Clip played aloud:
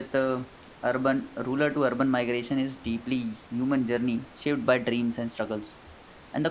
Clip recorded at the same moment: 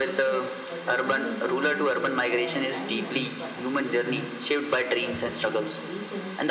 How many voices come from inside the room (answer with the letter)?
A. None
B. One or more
B